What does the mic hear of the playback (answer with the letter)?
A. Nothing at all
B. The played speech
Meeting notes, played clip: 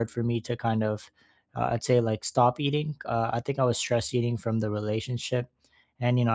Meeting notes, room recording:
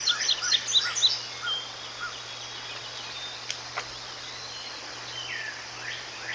A